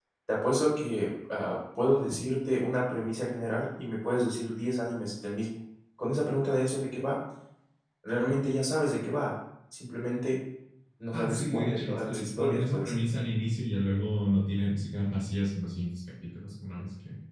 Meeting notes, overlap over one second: present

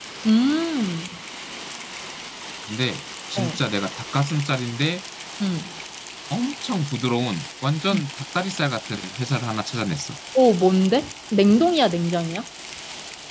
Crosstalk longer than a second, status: none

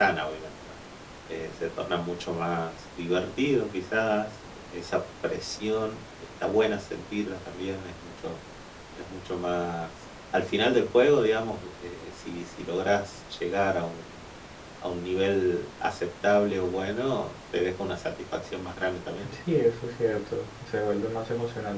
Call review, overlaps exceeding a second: none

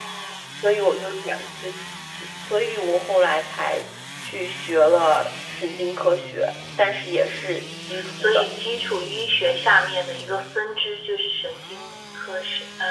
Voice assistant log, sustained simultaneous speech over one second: none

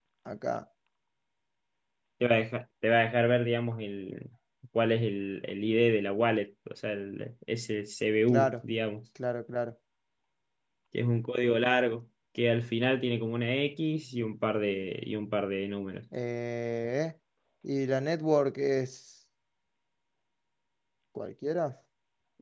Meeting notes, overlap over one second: none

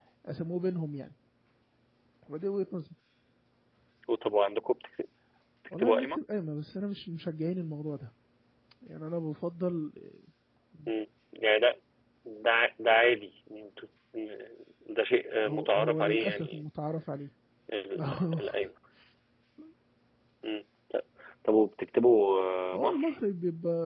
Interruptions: present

